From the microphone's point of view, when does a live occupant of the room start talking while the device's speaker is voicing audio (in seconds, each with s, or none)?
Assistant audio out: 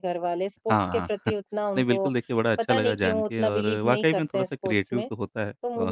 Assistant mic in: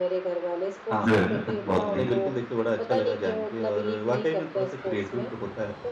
1.1 s